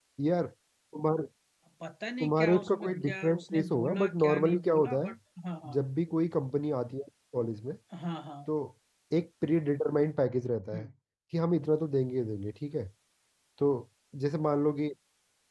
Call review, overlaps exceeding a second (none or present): present